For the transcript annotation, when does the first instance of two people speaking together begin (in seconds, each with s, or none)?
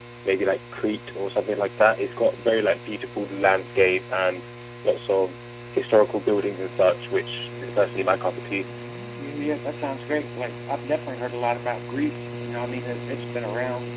none